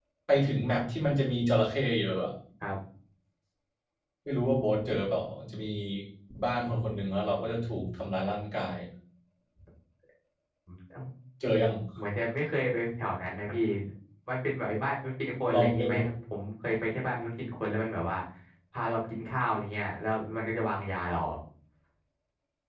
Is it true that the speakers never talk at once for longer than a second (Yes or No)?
Yes